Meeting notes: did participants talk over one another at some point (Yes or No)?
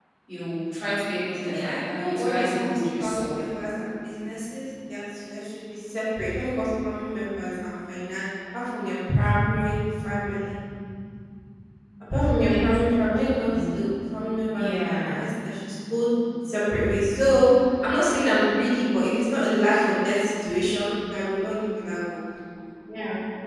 Yes